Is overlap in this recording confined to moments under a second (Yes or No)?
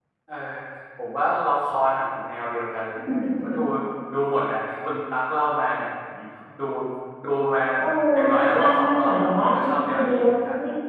No